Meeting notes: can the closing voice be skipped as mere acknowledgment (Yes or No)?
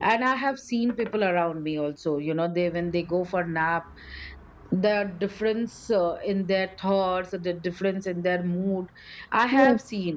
No